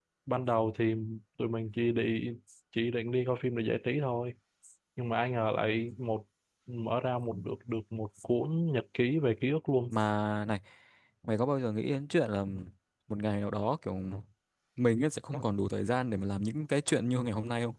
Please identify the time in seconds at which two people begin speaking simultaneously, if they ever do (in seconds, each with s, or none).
none